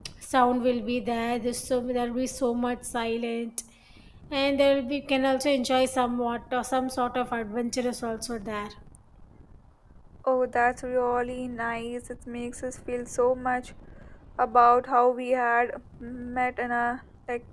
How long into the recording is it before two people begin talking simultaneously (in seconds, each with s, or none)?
none